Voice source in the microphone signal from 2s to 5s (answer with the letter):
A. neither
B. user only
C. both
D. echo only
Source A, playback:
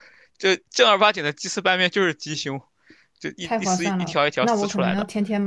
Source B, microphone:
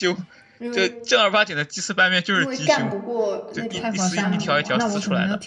C